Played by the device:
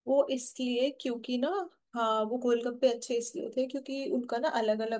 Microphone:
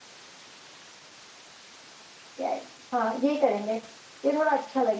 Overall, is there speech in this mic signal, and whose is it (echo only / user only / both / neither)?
user only